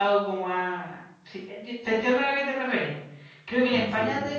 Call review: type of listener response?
listening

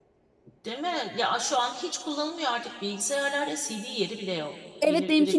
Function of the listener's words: taking over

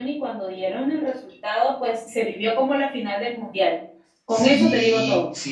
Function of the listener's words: taking over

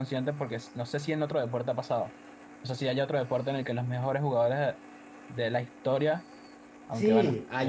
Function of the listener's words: taking over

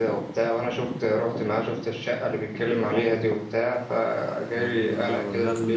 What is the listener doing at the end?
taking over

